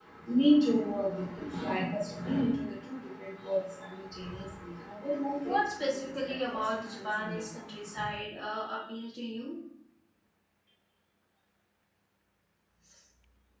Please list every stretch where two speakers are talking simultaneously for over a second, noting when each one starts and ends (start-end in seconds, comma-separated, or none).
5.4-7.4